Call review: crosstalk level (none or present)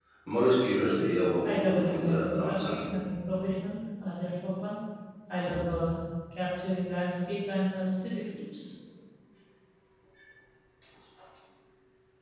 present